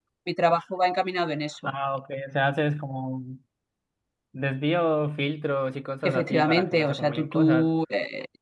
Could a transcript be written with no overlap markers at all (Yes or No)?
No